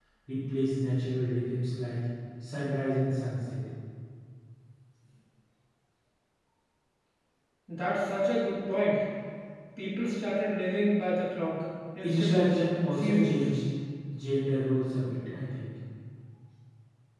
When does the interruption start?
12.0 s

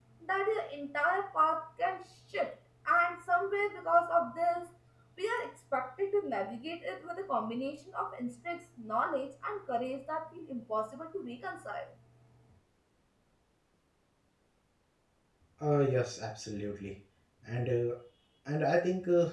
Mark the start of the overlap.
none

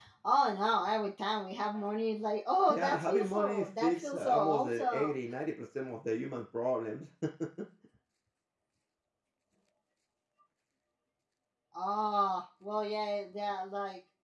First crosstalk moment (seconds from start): 2.7 s

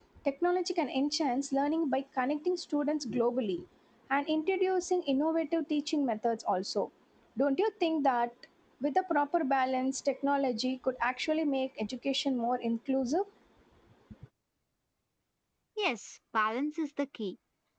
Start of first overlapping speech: none

